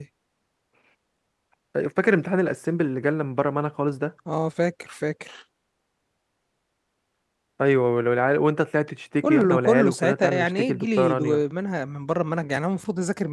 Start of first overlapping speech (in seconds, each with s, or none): 9.2 s